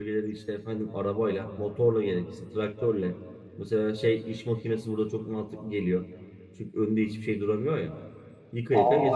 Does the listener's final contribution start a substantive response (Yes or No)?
Yes